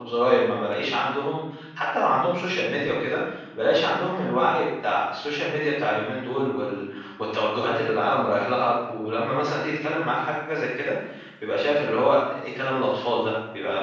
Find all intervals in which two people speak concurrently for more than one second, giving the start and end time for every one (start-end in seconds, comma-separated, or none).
none